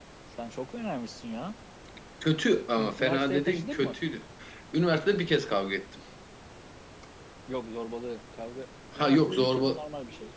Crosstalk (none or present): present